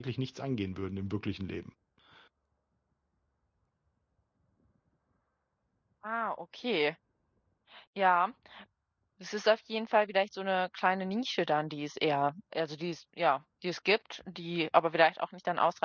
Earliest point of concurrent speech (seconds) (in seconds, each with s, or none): none